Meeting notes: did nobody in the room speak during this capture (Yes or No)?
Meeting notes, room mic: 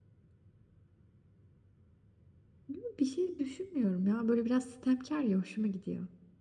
No